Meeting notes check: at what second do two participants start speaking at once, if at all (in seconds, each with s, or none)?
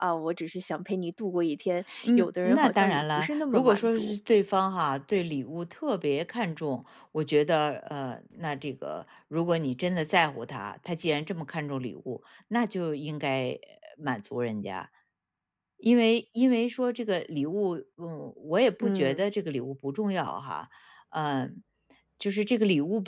2.0 s